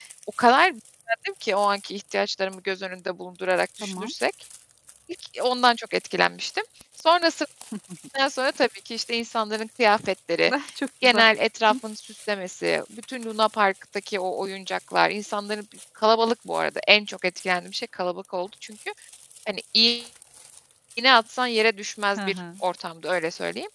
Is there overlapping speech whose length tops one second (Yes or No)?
No